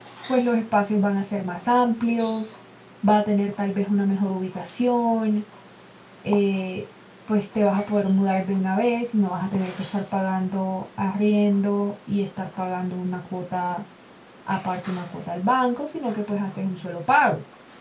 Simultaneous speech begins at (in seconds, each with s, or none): none